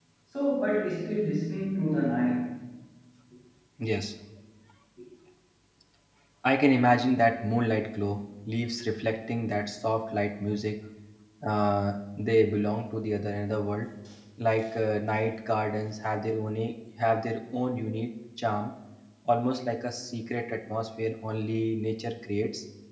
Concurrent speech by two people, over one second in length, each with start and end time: none

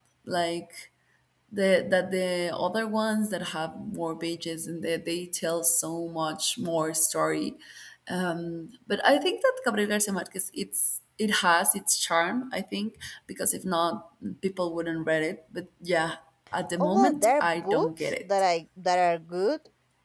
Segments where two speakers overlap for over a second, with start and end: 16.8-18.2

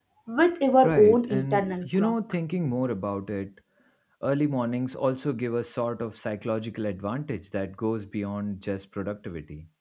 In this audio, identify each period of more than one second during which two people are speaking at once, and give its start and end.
0.8-2.1

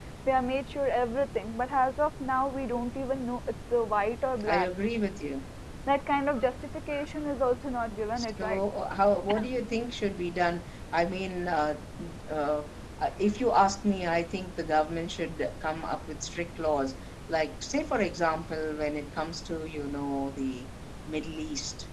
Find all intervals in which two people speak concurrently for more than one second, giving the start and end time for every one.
none

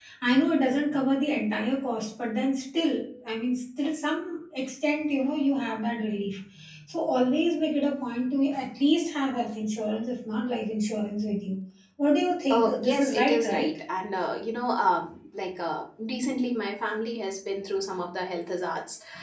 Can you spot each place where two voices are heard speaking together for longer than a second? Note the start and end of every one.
12.5-13.8

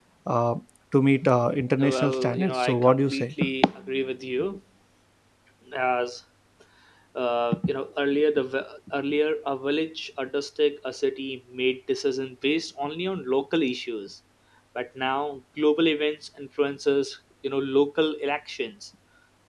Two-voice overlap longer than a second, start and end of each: 1.8-3.2

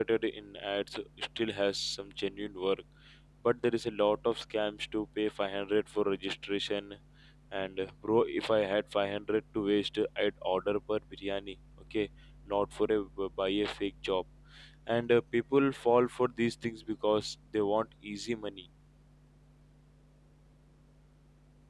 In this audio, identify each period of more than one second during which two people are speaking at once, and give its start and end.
none

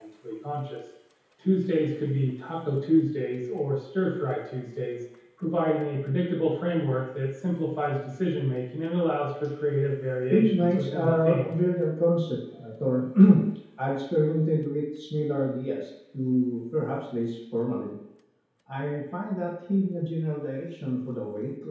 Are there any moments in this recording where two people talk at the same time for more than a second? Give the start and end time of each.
10.3-11.5

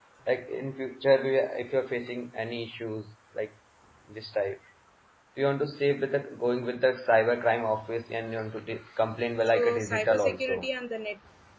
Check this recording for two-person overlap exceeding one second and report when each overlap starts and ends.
9.4-10.7

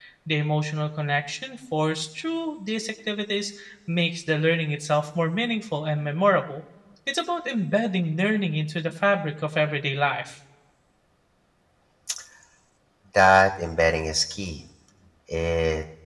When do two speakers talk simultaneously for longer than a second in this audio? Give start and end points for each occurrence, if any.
none

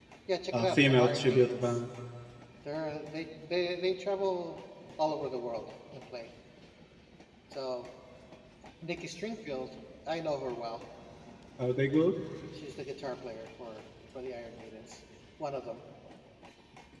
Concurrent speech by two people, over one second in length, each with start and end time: 0.5-1.8

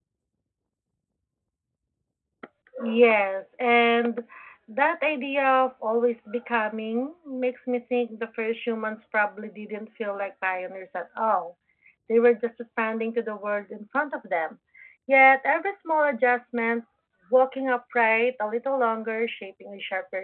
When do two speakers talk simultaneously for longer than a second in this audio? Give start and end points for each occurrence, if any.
none

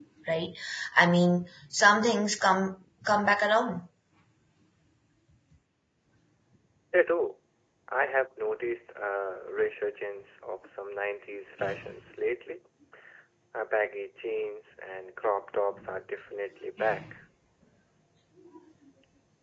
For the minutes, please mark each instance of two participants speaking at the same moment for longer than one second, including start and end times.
none

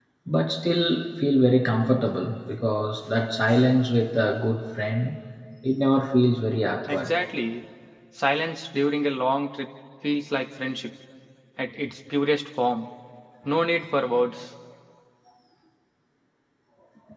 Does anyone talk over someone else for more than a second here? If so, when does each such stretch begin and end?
none

